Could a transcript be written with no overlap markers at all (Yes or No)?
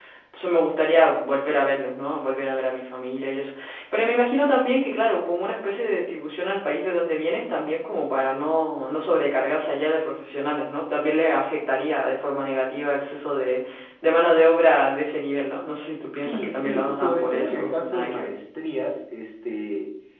No